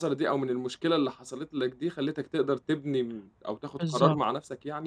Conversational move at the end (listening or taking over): listening